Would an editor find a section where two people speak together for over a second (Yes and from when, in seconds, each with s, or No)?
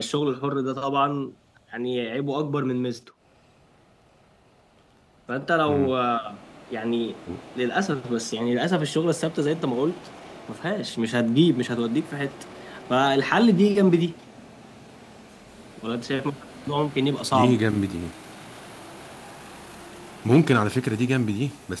No